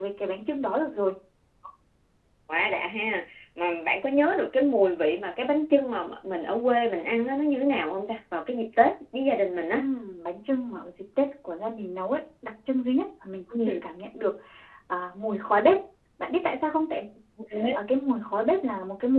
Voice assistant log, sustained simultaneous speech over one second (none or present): none